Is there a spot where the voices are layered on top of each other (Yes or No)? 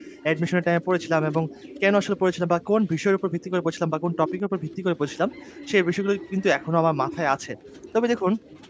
No